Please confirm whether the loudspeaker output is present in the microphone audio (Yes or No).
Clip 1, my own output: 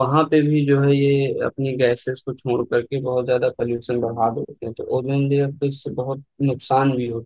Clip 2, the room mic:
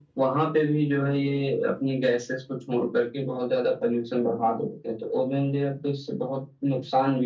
Yes